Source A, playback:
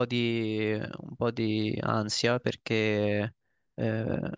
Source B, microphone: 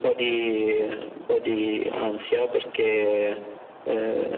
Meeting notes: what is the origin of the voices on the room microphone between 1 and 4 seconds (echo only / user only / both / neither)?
echo only